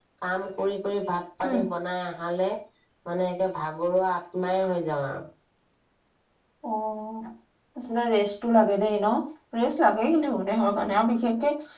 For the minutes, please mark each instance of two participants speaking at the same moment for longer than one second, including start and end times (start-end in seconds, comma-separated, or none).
none